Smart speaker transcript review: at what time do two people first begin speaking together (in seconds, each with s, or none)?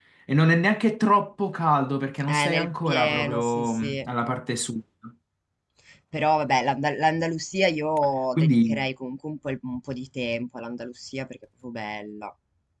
2.3 s